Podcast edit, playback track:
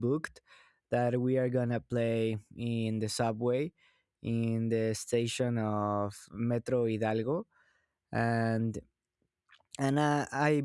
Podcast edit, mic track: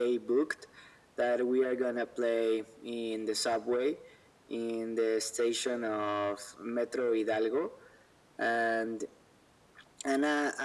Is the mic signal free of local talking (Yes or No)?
Yes